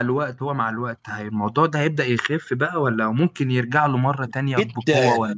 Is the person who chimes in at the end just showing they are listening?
No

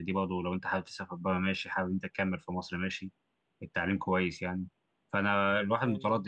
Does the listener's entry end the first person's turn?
No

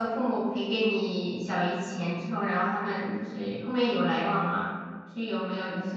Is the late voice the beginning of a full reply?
Yes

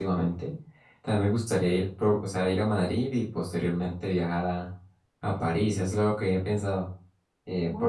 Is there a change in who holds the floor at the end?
No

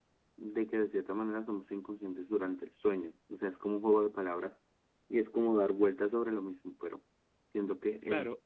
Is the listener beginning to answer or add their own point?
Yes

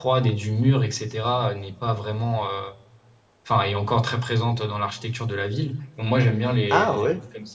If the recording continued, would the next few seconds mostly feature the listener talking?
No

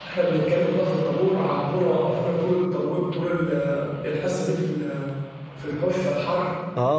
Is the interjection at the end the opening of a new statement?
Yes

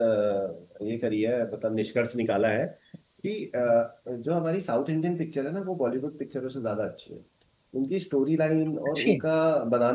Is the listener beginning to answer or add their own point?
No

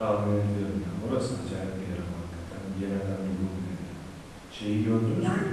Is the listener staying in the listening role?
No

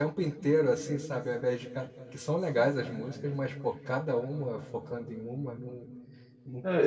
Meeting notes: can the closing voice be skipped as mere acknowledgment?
No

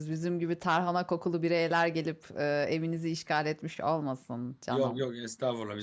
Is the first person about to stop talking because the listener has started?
Yes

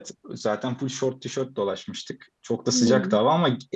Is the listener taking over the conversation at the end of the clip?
No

